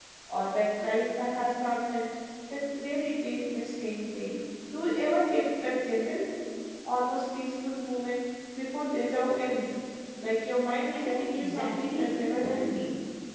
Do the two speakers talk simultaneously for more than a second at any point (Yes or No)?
Yes